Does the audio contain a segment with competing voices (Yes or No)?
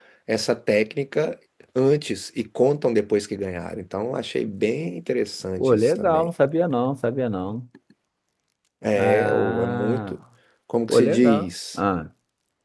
Yes